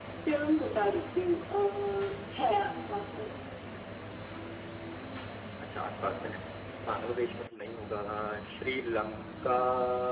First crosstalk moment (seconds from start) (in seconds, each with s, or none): none